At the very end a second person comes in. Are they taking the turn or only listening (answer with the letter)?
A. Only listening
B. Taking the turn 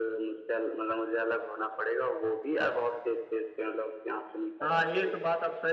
B